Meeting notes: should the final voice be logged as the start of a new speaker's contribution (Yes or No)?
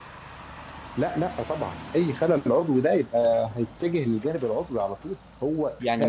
Yes